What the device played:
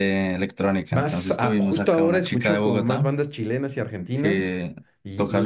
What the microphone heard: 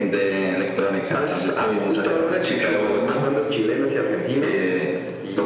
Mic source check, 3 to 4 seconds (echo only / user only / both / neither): echo only